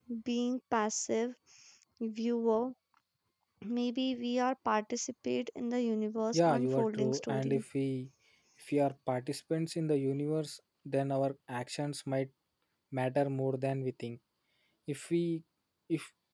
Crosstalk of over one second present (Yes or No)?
Yes